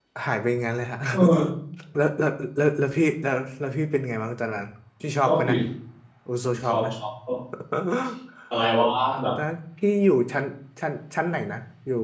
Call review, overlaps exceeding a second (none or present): none